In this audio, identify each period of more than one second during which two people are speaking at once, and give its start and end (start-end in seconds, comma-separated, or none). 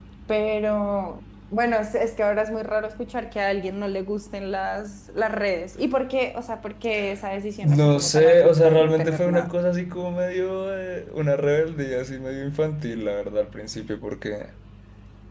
7.6-9.5